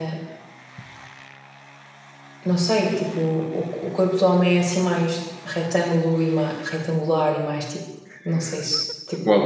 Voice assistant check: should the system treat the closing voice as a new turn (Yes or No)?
Yes